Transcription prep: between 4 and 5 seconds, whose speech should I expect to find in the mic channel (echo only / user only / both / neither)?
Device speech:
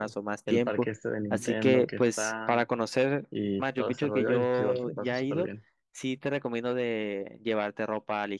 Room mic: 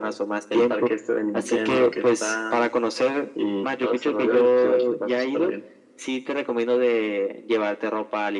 echo only